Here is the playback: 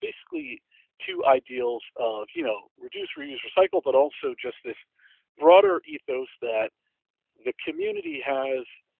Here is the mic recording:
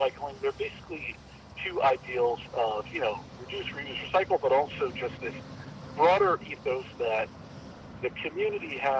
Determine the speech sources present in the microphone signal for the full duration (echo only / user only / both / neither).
echo only